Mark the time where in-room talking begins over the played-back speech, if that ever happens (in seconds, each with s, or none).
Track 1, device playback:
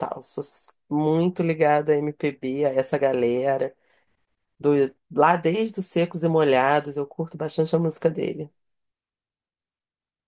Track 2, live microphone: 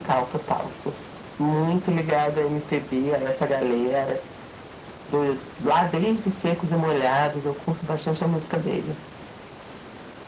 none